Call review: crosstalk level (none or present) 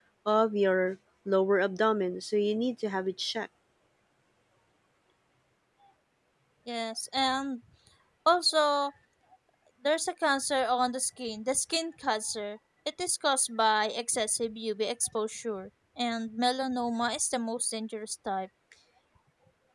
none